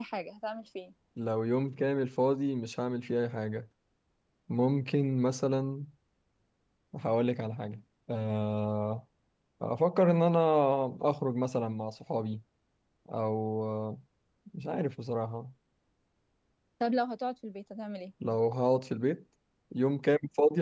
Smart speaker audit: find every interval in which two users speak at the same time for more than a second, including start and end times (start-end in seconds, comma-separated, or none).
none